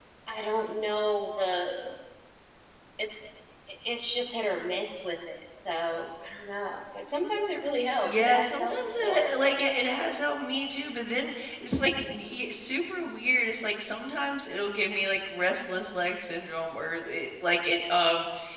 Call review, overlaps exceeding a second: present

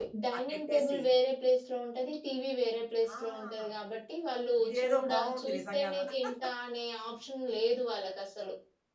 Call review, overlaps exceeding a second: present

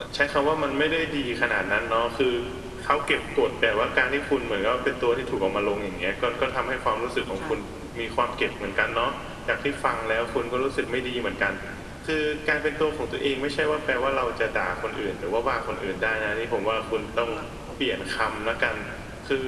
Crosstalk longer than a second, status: none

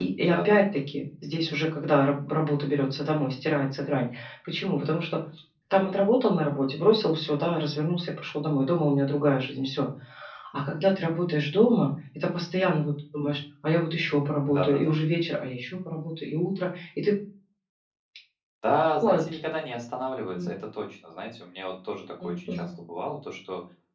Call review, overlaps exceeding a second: none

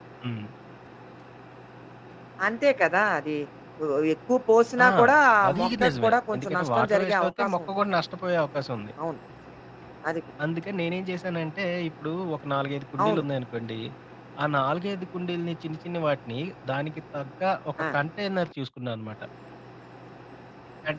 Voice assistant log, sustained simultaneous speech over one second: present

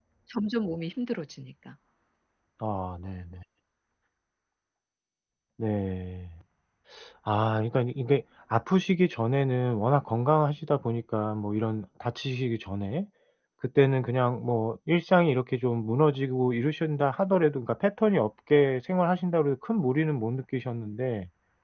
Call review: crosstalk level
none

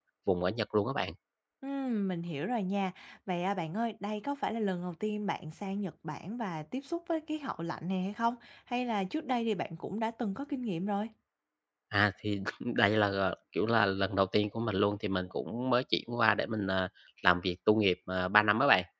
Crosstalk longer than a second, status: none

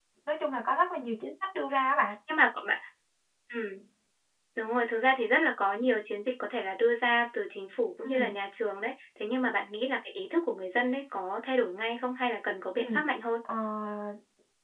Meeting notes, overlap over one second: none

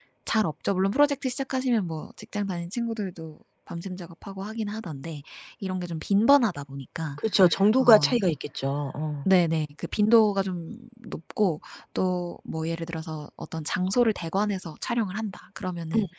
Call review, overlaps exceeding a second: none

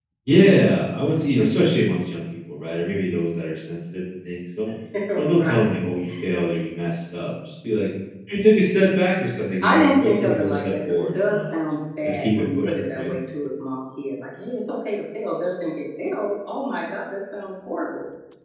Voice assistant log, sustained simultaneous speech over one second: present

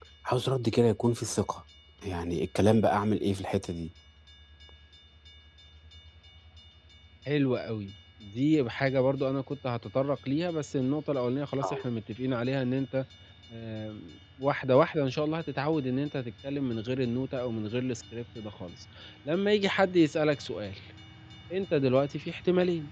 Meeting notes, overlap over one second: none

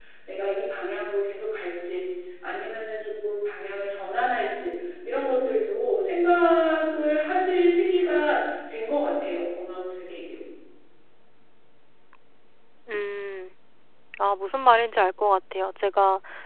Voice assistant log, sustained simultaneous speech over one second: none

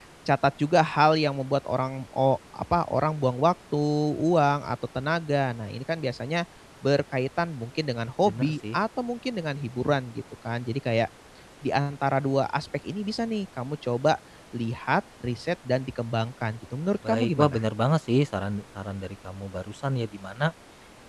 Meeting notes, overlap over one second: none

